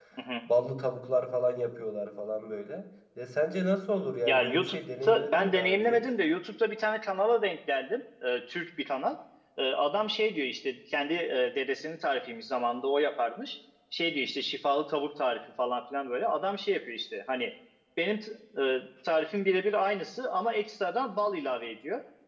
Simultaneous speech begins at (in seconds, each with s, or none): 4.2 s